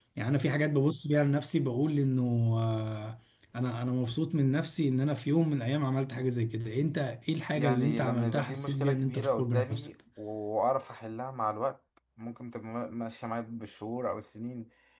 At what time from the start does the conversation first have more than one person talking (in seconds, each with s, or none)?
7.6 s